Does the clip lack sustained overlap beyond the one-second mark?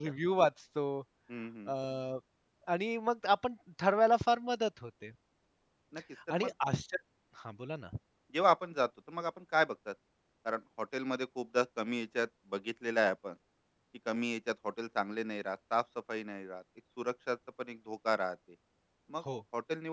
Yes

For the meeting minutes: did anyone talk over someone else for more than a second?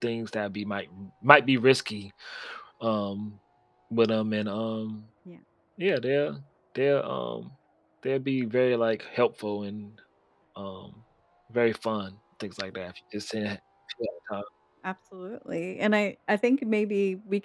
No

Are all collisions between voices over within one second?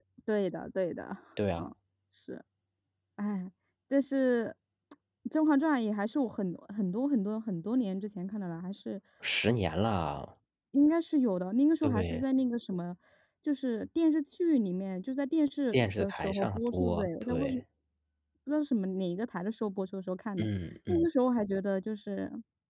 No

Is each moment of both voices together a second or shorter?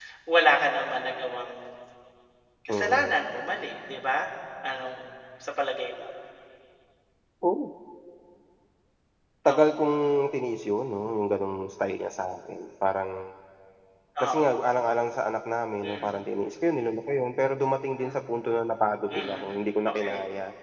Yes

